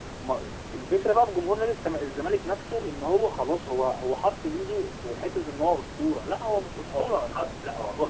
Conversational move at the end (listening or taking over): taking over